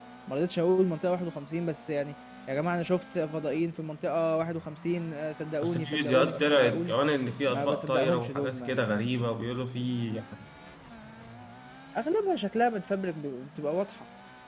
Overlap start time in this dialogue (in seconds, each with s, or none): 5.6 s